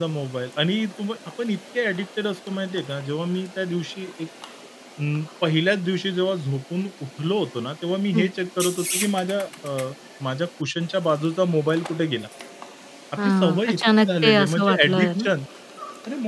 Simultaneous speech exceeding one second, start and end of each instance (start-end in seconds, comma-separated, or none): 13.2-15.2